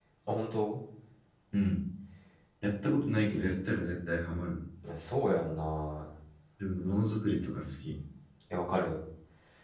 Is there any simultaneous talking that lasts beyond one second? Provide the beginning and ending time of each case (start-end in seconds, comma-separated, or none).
none